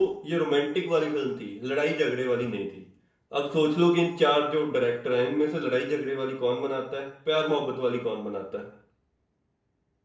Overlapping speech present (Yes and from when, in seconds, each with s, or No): No